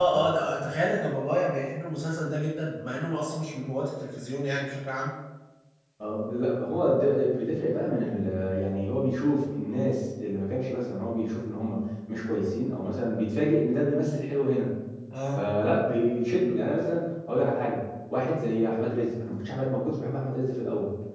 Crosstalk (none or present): none